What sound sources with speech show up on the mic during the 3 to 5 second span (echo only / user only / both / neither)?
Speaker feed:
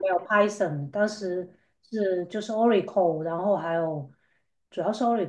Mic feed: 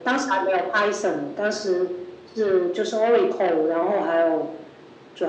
echo only